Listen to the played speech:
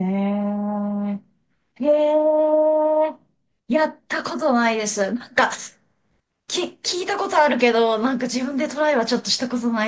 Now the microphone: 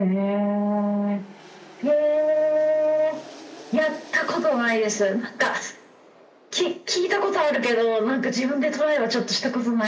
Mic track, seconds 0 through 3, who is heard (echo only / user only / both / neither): echo only